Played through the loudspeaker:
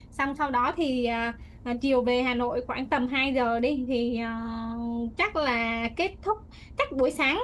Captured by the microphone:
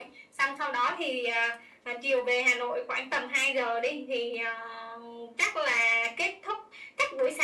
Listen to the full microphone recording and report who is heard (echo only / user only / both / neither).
echo only